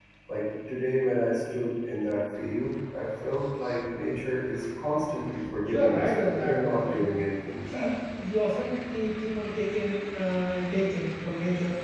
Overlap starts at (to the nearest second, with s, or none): 6 s